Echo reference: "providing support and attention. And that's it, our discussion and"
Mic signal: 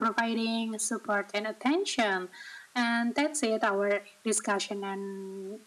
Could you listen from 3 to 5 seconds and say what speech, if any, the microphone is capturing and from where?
echo only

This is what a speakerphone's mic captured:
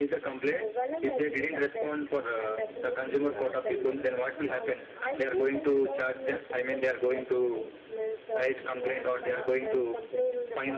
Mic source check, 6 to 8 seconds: echo only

